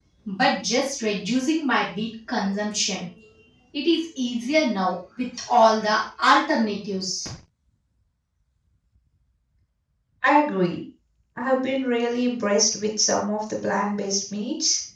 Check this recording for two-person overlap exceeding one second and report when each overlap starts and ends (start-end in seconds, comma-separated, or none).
none